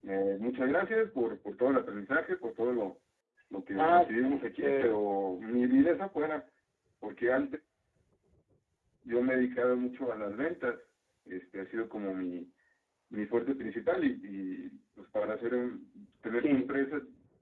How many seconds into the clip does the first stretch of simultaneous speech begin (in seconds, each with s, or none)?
3.8 s